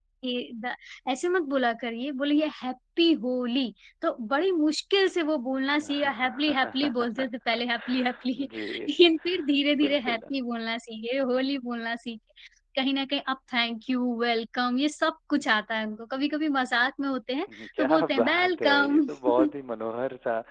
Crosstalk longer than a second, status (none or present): present